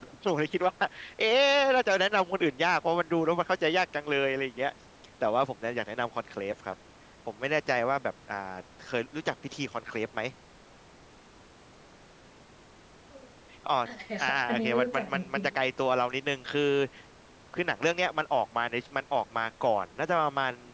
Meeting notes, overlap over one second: present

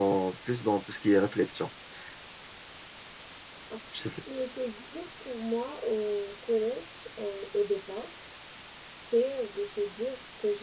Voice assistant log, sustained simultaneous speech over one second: none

